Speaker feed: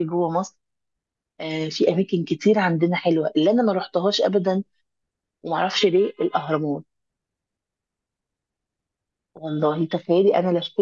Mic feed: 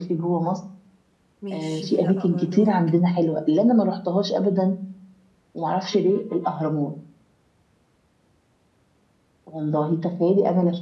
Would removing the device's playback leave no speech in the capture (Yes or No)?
No